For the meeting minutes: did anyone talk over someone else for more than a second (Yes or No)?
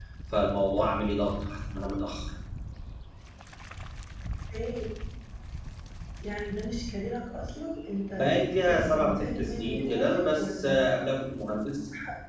Yes